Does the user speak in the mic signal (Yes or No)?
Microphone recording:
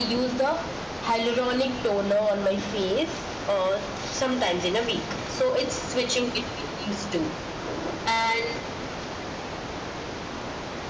No